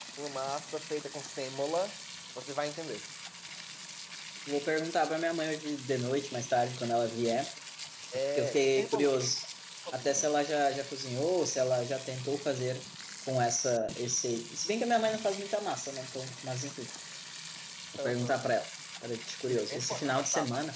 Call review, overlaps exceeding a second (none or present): present